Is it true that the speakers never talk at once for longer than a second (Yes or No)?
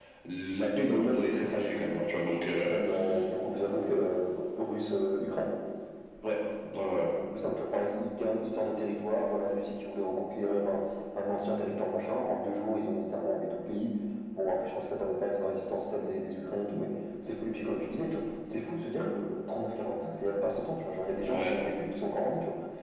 Yes